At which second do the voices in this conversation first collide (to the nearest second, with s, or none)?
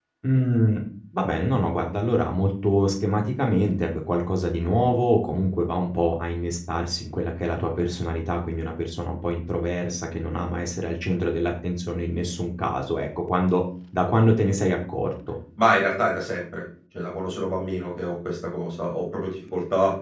none